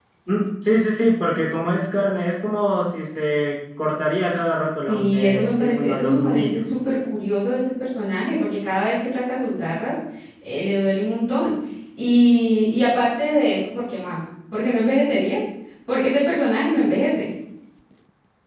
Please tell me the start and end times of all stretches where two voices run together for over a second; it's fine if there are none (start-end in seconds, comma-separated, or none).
4.9-6.6